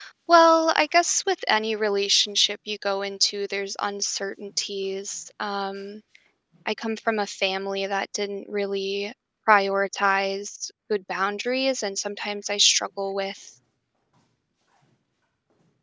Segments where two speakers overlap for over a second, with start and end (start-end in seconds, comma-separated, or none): none